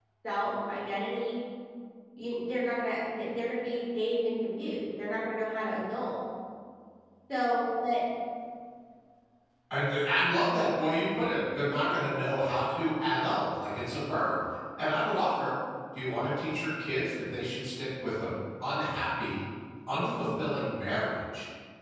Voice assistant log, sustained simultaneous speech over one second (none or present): none